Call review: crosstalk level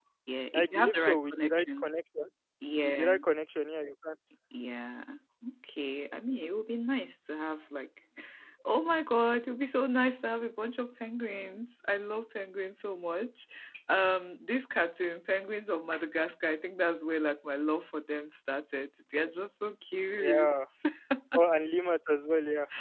present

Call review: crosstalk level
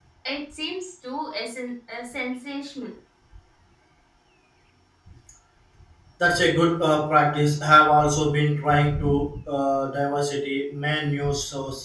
none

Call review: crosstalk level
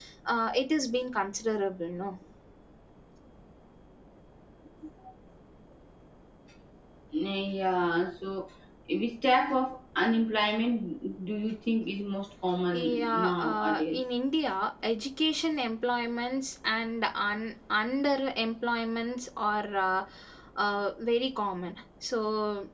present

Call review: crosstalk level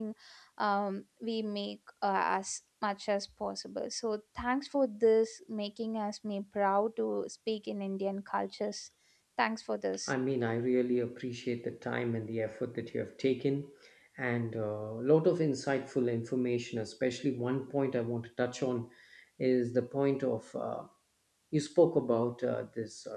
none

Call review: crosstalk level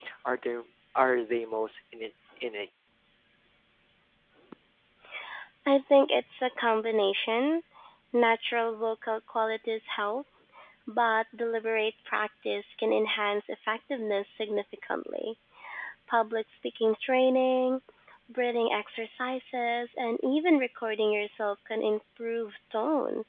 none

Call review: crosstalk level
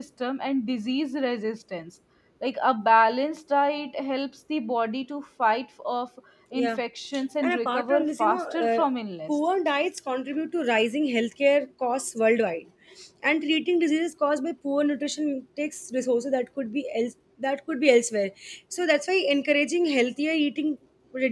present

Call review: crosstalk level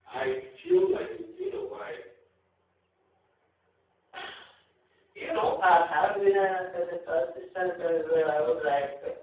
none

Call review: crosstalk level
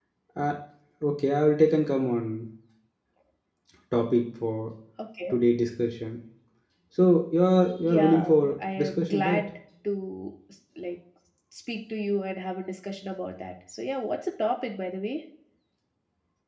present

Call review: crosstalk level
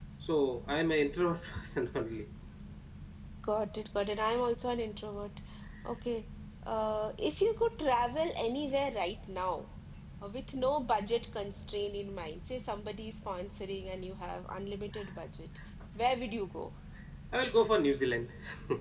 none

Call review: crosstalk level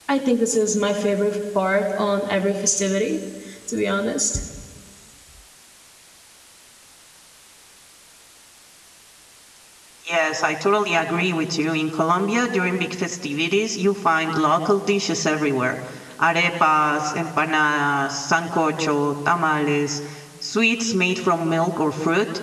none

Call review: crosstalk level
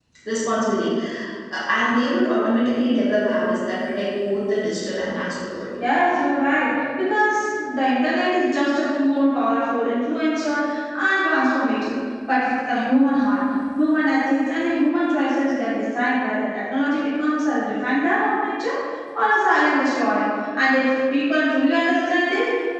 none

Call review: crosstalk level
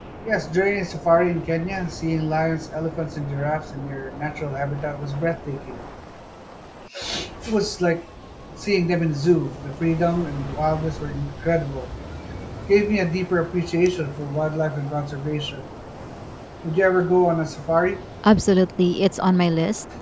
none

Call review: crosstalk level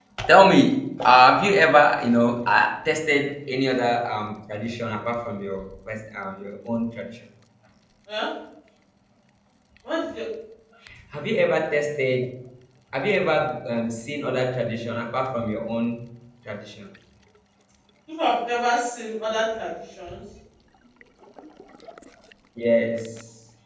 none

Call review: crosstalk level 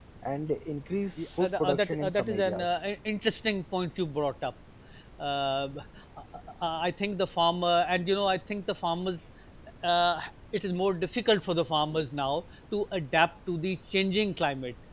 present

